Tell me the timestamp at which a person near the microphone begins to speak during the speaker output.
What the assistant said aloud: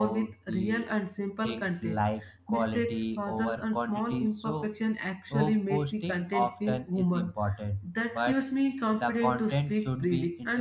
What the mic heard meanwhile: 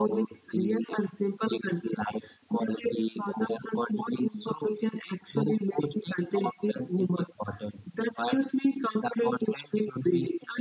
none

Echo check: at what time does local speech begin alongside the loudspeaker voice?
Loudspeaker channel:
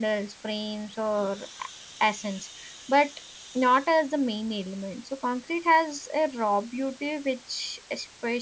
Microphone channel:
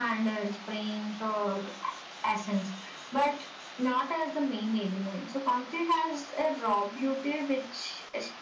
none

